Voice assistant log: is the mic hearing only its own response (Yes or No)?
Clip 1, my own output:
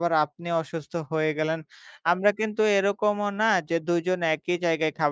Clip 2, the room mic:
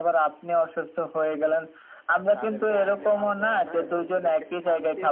No